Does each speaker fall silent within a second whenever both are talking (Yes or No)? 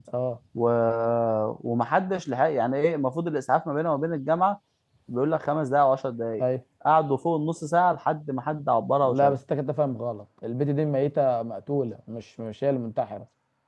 Yes